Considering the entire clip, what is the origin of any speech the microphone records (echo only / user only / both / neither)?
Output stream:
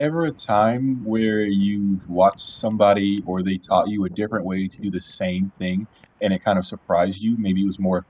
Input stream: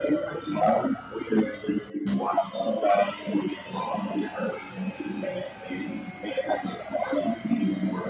echo only